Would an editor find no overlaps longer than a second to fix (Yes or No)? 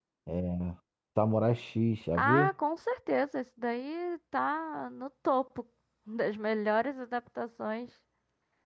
Yes